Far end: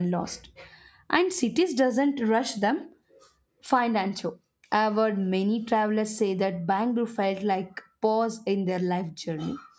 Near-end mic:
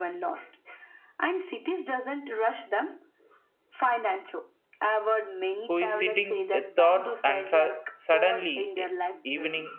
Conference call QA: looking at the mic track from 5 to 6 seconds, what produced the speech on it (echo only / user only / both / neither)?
both